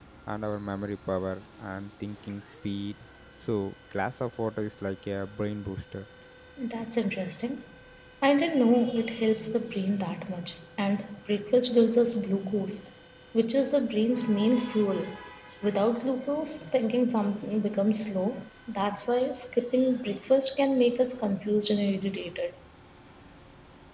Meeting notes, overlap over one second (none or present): none